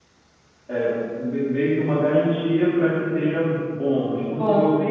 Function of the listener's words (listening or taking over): listening